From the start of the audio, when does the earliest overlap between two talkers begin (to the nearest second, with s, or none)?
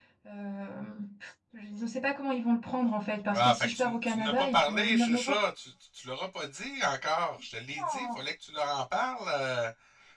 3 s